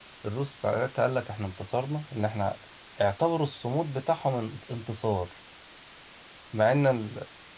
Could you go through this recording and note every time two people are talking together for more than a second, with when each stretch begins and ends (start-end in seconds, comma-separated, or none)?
none